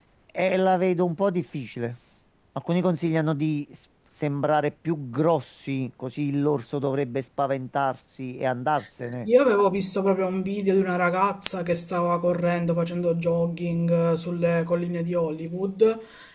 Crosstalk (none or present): none